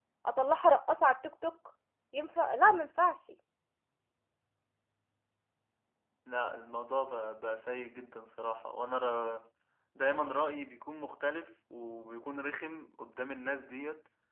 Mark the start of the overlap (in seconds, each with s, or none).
none